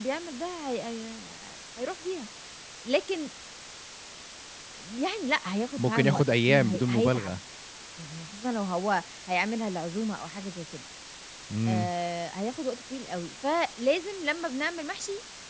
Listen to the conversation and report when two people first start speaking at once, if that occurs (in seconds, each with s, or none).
5.8 s